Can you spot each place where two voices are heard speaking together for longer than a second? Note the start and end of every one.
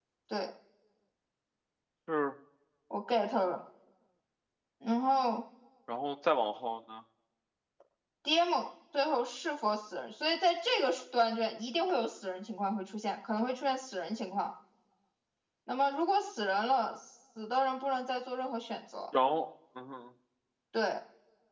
none

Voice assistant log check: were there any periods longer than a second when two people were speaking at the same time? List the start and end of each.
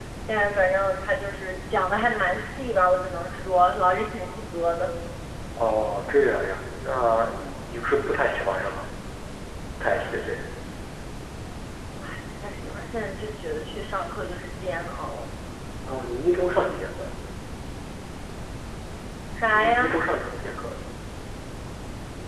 none

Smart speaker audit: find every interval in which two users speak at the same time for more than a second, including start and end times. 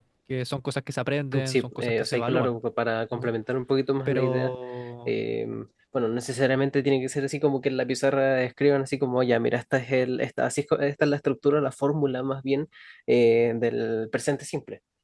1.3-2.6

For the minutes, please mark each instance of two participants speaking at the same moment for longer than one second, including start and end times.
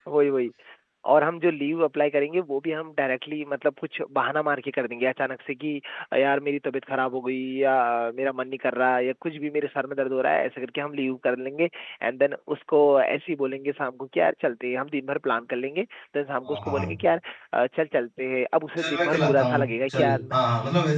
18.8-20.4

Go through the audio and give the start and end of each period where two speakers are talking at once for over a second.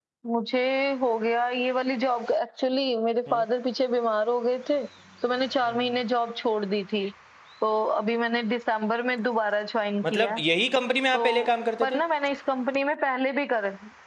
none

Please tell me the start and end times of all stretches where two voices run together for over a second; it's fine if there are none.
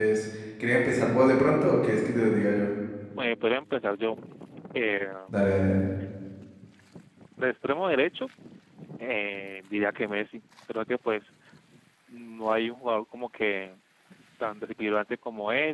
none

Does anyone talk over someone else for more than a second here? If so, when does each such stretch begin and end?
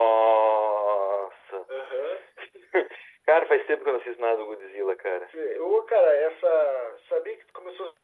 none

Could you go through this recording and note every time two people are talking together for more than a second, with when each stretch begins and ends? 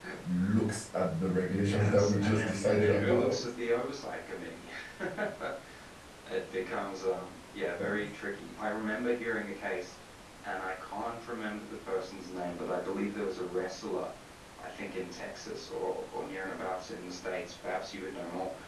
1.6-3.4

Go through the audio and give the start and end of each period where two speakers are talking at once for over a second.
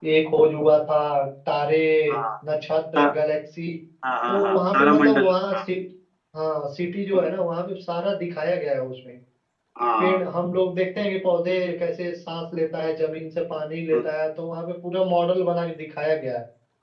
4.3-5.6

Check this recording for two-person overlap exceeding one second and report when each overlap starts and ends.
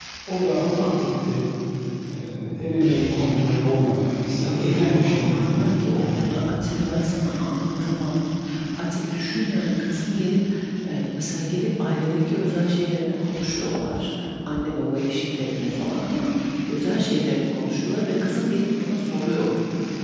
4.4-6.3

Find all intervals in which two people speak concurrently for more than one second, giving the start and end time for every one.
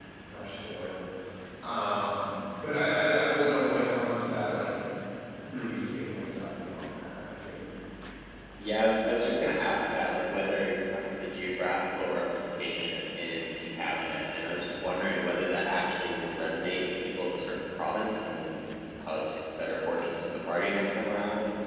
none

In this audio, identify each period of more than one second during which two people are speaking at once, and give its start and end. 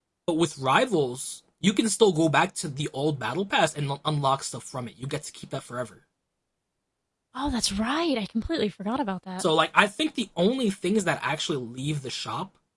none

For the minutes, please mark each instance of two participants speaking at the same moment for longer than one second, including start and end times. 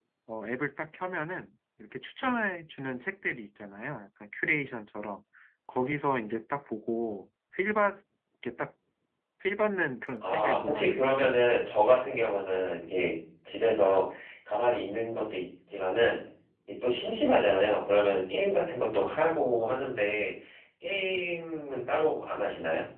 10.2-11.4

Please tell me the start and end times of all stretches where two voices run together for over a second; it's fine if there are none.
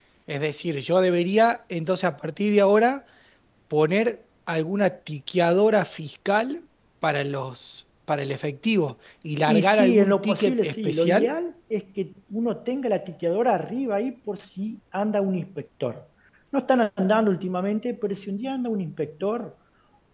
9.5-11.3

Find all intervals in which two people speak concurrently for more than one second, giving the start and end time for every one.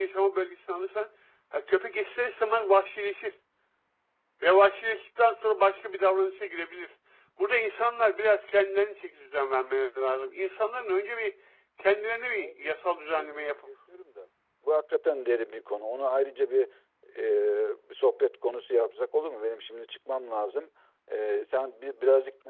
none

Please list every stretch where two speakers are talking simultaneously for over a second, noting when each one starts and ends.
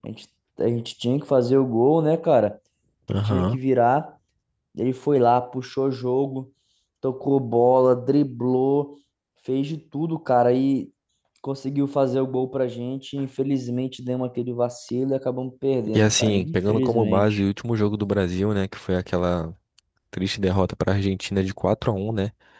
15.9-17.4

